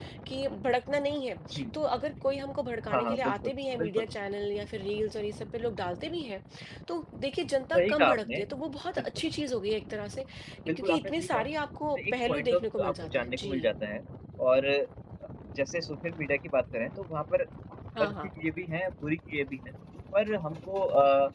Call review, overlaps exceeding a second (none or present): present